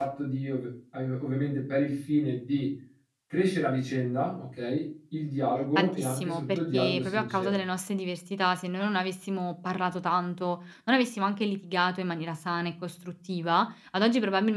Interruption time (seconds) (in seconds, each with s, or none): 5.8 s